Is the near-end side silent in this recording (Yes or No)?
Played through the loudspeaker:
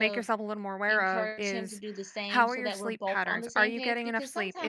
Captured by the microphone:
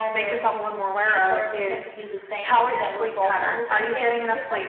Yes